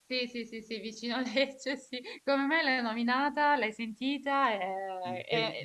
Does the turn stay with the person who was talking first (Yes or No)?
No